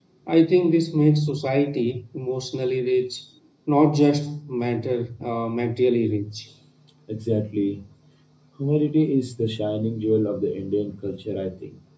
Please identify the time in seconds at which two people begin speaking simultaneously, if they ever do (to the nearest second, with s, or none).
none